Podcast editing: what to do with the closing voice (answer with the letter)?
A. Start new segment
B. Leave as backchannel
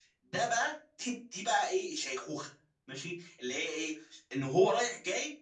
B